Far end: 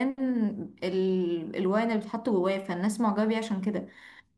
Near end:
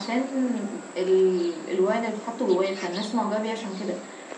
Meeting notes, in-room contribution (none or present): none